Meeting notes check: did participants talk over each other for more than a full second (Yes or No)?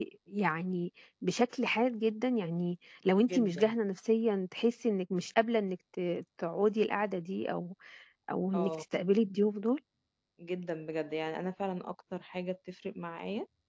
No